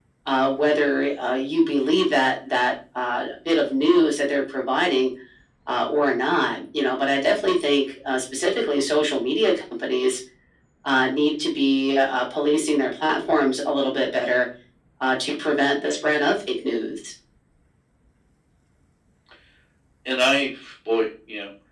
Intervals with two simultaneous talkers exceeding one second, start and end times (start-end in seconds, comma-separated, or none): none